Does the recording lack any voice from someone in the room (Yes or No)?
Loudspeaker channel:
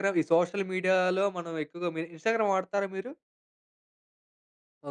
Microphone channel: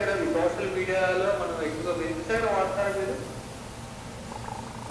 Yes